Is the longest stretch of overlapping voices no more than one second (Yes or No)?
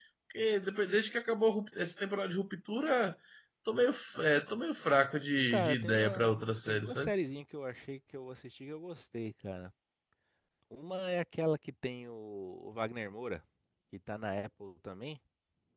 No